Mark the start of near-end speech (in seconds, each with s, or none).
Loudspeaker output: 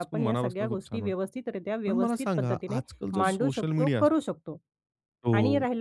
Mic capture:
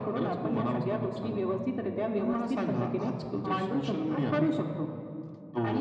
none